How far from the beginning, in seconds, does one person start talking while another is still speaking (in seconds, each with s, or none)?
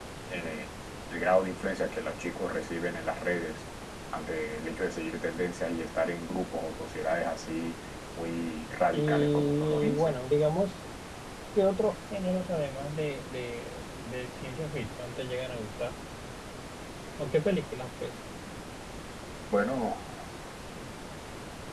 8.9 s